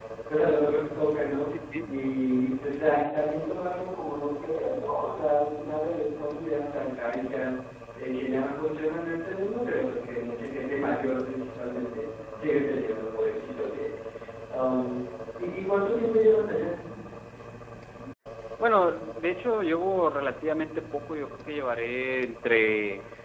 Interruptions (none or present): none